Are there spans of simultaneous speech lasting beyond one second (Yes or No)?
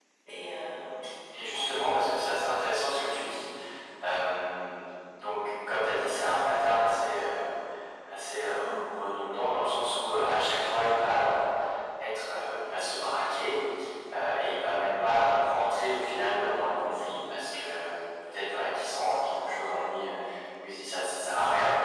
No